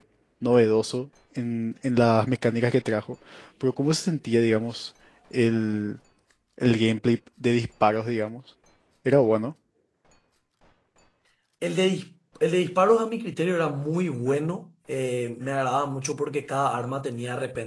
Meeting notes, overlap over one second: none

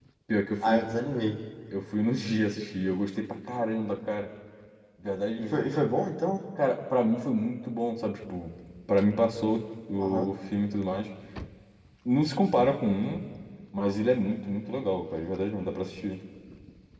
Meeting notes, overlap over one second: none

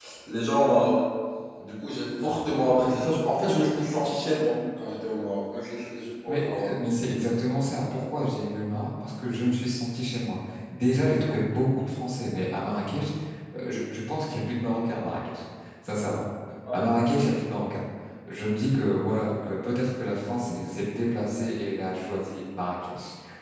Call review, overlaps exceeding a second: none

